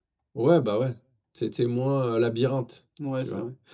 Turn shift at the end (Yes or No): Yes